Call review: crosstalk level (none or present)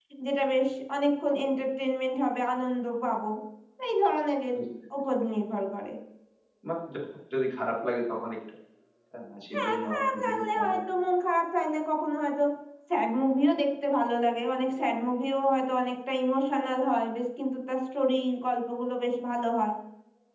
present